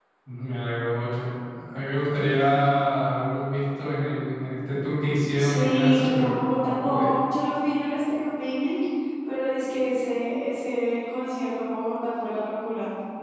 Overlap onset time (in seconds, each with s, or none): 5.3 s